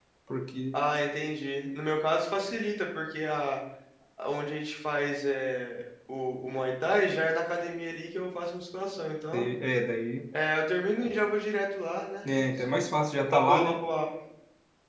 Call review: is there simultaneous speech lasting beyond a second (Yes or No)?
No